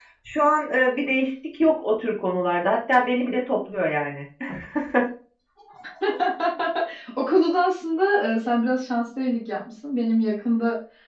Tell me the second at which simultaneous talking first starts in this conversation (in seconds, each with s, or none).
none